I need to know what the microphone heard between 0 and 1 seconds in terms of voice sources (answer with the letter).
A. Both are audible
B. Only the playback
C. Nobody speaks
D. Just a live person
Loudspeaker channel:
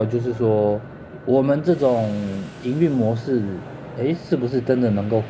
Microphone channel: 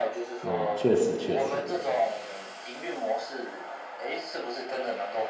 A